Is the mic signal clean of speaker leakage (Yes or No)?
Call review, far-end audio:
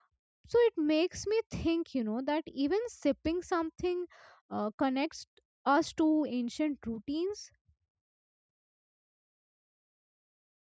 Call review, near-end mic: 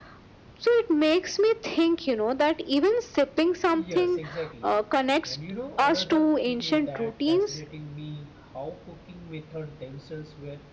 No